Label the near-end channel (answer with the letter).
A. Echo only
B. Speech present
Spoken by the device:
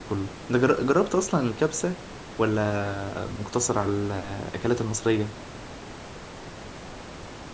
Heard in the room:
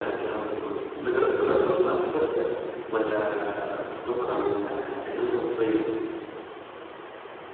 A